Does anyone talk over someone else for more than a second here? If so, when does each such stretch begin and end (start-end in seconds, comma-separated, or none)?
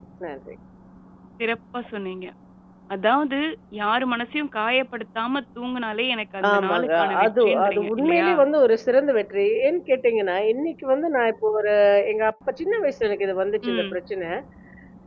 6.5-8.3